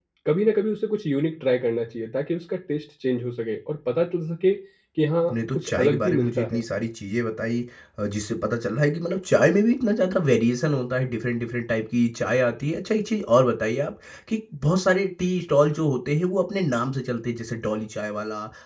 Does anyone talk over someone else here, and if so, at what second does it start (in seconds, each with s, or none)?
5.3 s